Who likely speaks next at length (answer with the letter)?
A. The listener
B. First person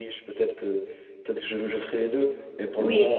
B